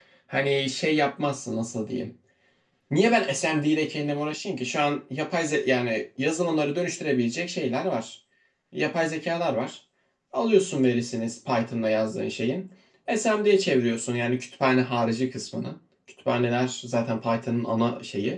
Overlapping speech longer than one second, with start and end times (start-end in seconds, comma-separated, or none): none